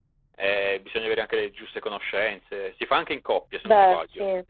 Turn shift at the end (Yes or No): No